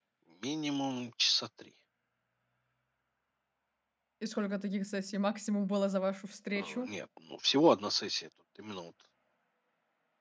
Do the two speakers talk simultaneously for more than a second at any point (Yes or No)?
No